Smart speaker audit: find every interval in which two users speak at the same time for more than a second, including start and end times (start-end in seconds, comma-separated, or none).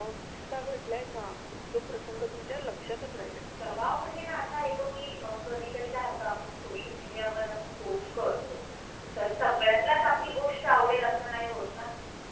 none